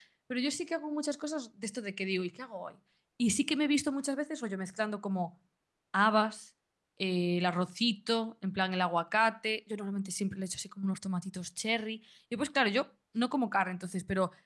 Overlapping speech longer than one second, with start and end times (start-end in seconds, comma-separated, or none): none